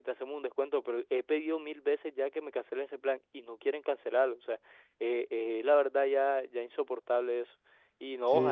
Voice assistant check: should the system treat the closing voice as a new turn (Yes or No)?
No